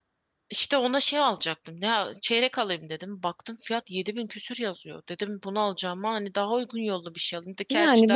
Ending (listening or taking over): taking over